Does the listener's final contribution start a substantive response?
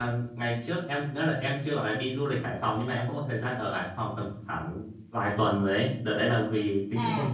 No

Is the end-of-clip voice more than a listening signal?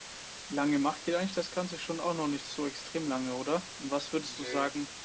No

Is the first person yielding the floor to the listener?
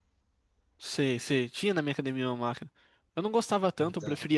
No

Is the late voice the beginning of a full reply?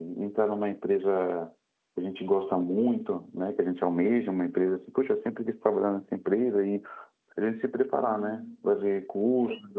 No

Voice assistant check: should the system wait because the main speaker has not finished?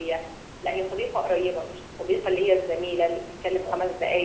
Yes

